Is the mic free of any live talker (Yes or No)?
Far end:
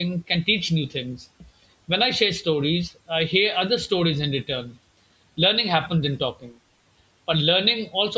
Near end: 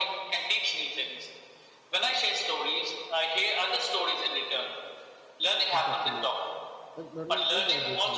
No